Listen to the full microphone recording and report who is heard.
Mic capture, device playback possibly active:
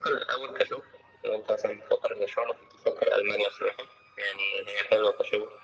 echo only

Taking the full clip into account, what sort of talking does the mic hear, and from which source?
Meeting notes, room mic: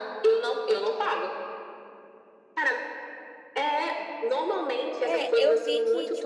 both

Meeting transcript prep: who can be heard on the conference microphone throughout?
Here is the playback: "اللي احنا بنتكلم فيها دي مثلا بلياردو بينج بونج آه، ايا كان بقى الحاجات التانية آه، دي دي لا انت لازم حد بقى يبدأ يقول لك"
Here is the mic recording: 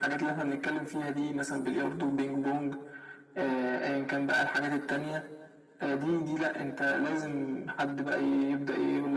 echo only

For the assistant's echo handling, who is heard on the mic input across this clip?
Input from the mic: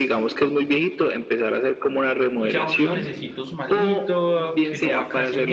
both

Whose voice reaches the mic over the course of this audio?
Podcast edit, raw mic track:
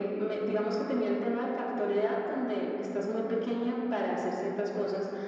echo only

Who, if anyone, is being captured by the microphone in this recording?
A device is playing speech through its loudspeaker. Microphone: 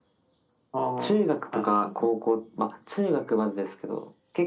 echo only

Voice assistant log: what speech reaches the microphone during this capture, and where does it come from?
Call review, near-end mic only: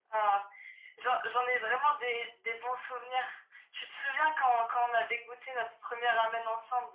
echo only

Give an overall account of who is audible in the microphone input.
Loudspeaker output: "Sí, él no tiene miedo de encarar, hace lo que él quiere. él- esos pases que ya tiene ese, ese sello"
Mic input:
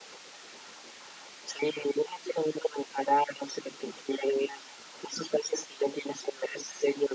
echo only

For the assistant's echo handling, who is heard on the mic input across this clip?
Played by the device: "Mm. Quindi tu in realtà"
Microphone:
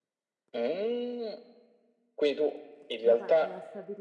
both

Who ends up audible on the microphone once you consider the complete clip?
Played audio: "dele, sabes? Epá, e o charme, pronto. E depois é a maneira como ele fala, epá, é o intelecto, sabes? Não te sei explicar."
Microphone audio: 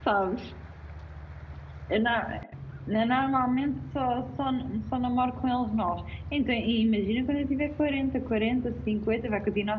user only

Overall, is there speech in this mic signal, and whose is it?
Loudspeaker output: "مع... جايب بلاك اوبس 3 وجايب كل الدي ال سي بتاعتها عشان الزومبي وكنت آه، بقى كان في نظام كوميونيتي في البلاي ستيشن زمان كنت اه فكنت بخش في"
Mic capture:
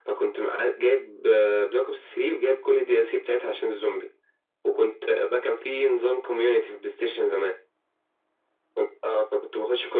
echo only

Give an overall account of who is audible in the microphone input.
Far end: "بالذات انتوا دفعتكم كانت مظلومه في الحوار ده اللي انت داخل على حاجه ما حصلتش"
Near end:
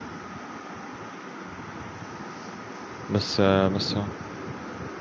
user only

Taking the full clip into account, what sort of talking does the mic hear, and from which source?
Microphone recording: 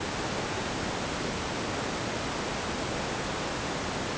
neither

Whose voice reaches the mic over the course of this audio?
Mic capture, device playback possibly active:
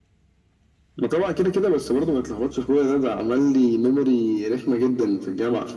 echo only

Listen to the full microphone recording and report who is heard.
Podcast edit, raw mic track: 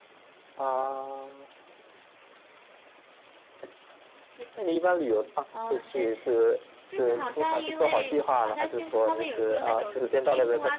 both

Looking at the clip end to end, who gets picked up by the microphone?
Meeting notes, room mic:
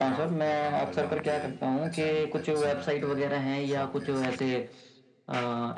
both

